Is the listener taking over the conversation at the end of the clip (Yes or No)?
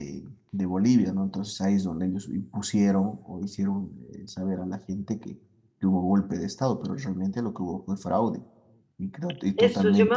Yes